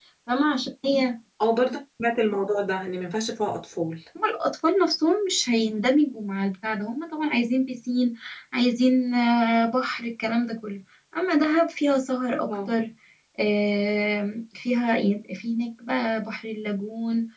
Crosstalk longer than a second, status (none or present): none